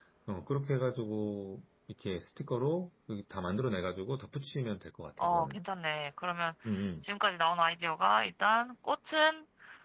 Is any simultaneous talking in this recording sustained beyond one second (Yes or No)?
No